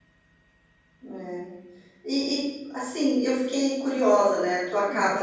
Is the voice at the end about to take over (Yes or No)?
No